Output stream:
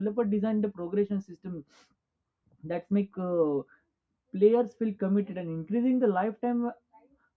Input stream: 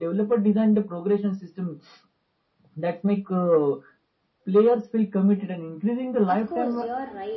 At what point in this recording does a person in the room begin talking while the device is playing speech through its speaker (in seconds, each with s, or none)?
6.3 s